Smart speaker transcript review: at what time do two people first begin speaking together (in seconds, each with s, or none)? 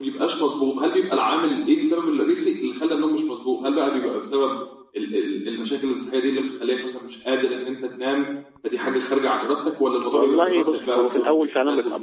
10.1 s